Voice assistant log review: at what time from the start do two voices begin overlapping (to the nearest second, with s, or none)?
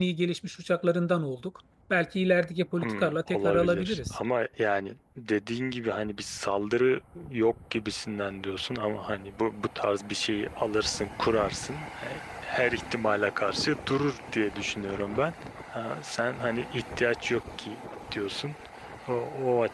3 s